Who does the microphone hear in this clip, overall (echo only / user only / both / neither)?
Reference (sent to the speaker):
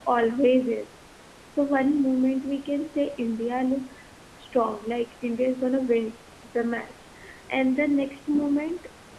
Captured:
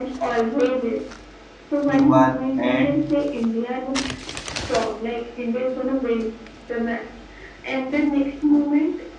both